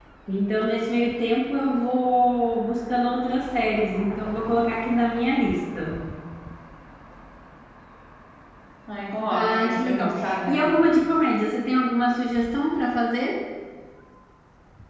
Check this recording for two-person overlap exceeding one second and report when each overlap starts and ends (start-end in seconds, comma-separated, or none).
9.3-10.7